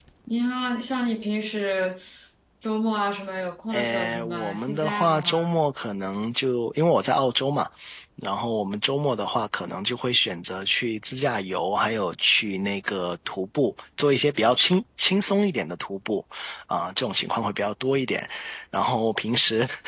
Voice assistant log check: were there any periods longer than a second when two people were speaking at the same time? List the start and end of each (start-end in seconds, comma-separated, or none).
3.7-5.6